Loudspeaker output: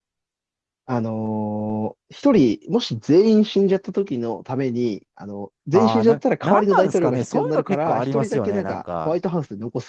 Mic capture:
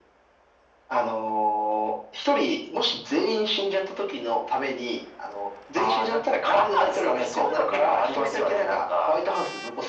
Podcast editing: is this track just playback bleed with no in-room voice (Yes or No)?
Yes